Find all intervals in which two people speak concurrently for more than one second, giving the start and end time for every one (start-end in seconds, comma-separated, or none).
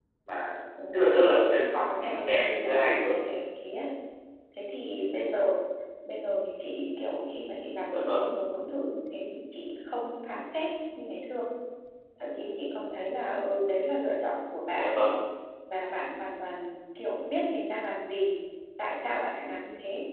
1.9-3.1